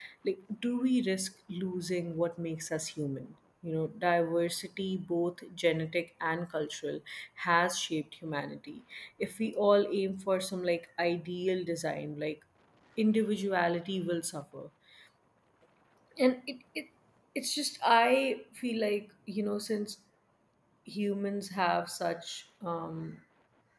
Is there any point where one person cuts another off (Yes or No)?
No